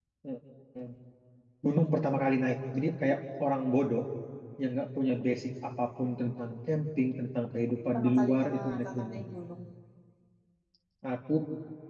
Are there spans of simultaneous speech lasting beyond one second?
Yes, from 7.9 s

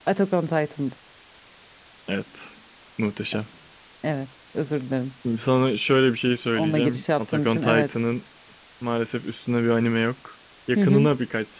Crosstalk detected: Yes, from 6.6 s

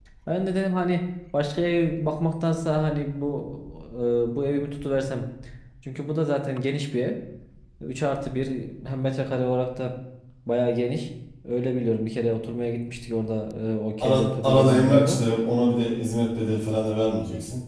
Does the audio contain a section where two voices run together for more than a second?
Yes, from 14.0 s

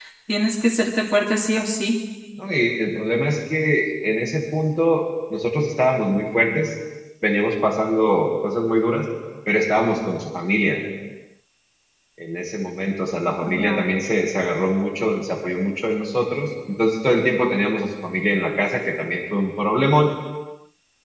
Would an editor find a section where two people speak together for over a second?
No

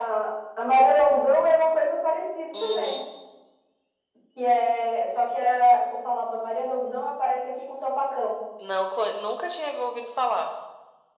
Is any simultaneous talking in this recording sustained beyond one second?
No

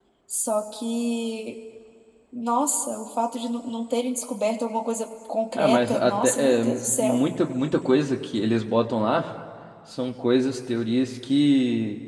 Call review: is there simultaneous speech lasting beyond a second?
Yes, from 5.6 s

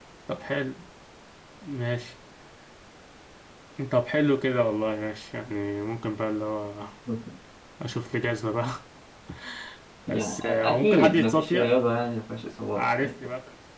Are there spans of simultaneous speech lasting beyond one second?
Yes, from 10.1 s

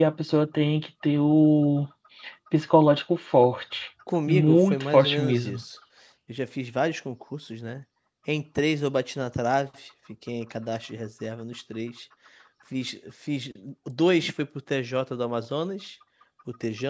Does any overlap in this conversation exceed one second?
Yes, from 4.1 s

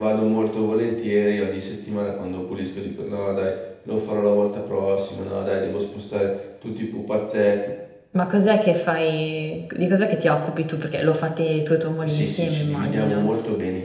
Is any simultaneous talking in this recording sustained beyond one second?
Yes, from 12.0 s

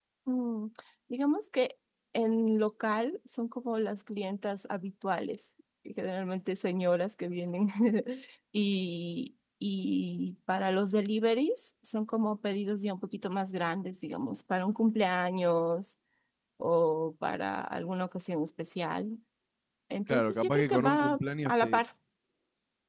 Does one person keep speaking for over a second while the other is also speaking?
Yes, from 20.1 s

